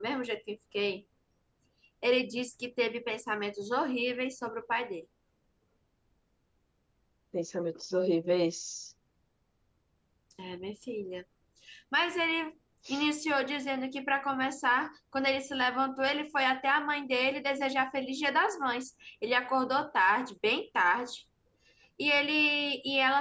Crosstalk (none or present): none